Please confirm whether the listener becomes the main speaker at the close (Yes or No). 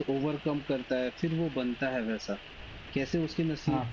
No